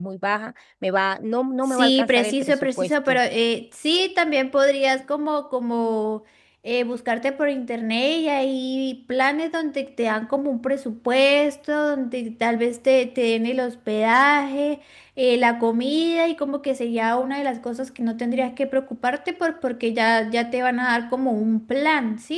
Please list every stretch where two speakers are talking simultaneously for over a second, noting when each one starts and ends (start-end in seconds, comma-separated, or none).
1.7-3.2